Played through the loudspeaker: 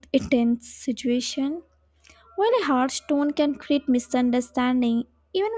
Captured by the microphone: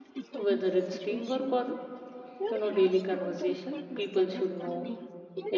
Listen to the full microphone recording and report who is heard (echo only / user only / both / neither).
both